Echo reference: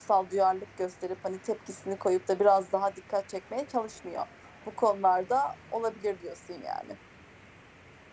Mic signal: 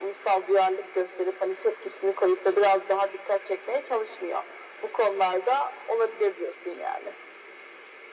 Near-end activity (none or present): none